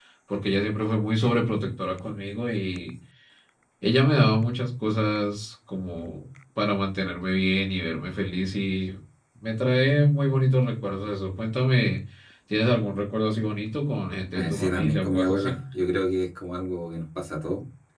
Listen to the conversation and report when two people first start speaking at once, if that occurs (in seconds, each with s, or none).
14.3 s